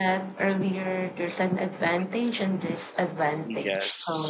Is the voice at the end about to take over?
Yes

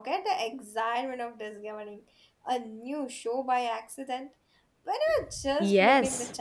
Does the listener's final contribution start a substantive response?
Yes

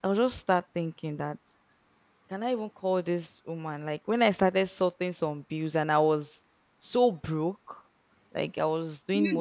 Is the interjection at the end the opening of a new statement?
No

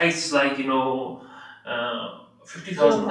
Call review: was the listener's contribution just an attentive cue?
Yes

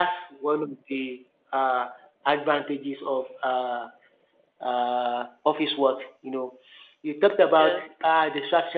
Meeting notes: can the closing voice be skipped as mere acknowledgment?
Yes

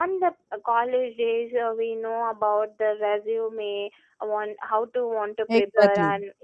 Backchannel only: Yes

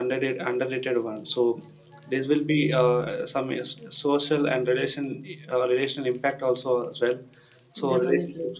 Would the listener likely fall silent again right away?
Yes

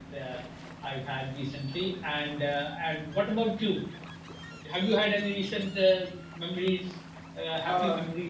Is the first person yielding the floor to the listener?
Yes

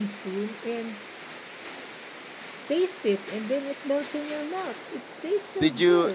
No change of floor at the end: No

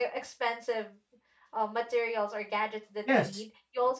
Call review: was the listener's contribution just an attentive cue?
Yes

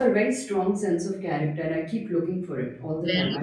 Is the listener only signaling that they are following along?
No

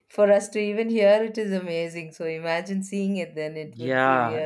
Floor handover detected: Yes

